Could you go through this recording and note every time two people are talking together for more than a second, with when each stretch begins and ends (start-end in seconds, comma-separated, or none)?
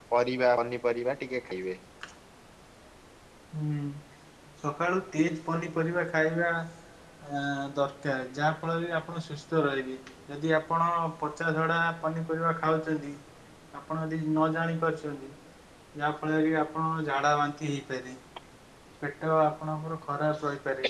none